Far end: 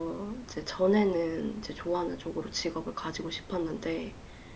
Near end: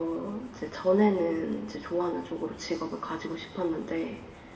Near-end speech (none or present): none